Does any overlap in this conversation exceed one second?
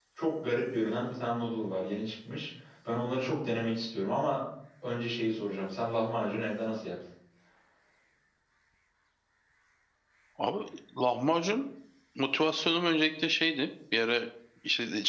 No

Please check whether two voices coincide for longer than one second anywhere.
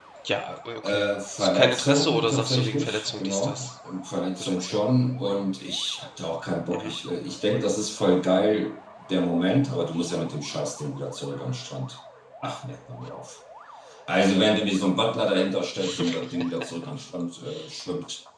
Yes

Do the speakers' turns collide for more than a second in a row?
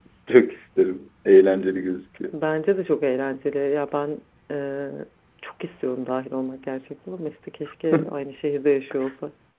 No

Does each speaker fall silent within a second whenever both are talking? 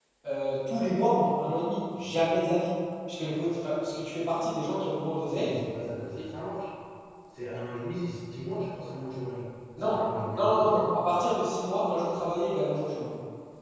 Yes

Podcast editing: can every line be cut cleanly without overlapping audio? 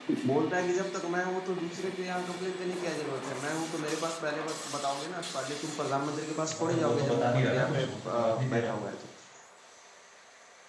No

